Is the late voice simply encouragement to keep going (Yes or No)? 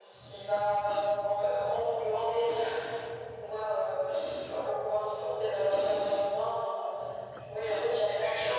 No